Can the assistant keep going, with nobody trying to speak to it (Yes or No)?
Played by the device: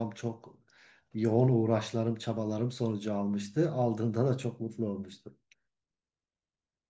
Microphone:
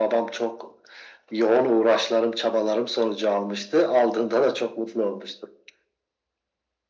Yes